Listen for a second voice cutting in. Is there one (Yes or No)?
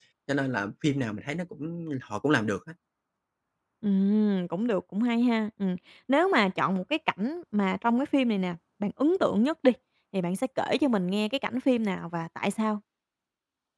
No